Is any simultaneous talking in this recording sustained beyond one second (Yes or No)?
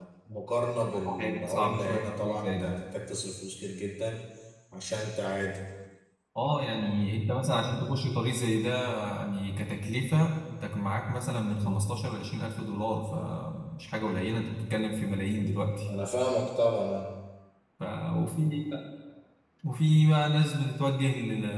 Yes